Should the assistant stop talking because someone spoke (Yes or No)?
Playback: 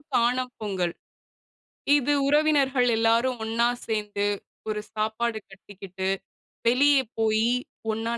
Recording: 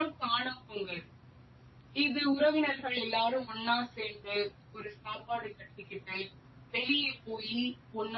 No